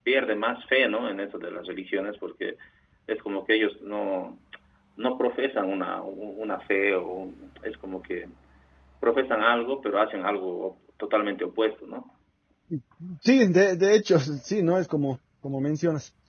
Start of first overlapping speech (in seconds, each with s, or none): none